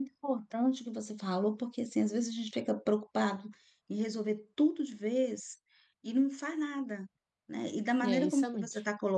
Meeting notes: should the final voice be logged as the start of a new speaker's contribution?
No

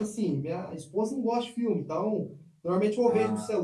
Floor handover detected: No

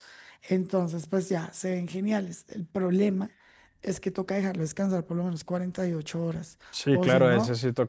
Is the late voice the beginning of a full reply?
Yes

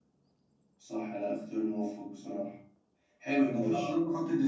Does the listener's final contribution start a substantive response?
No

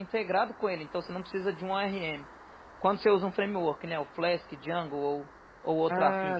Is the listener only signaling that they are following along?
No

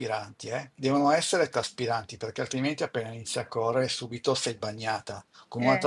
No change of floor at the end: Yes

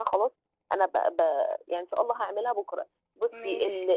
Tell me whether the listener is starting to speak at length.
No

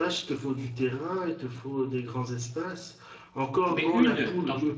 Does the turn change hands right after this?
No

